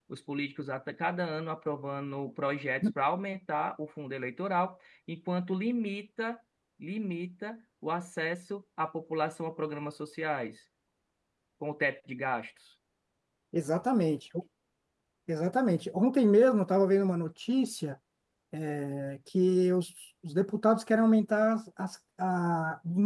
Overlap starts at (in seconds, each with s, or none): none